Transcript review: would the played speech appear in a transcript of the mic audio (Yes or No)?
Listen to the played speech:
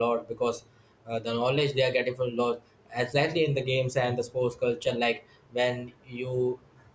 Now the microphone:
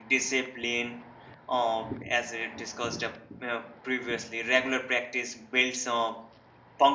No